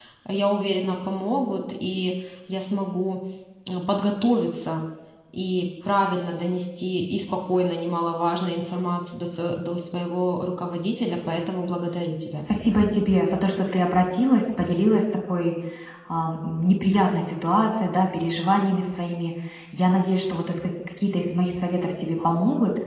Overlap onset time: none

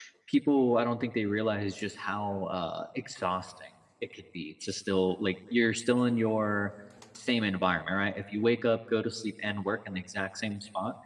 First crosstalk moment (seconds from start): none

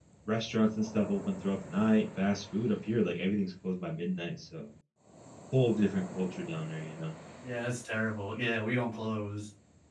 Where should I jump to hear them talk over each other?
none

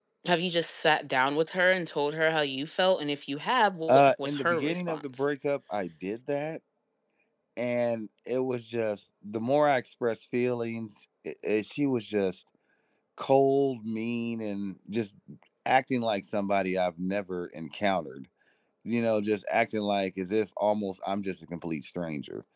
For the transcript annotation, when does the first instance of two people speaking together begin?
4 s

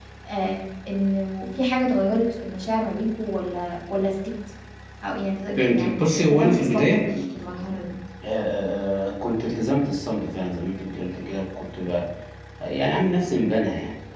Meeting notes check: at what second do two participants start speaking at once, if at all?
6 s

